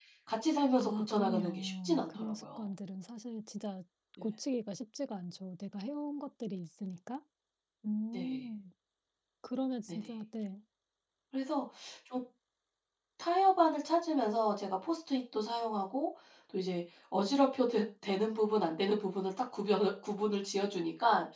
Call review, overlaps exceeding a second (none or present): present